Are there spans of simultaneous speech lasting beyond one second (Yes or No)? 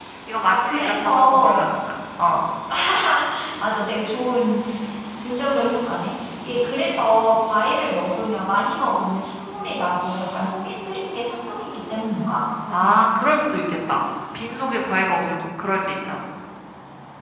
Yes